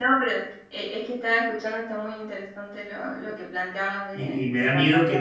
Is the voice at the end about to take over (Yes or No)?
Yes